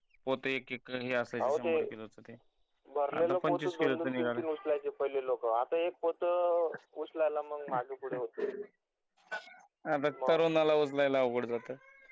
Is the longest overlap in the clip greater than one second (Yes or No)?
Yes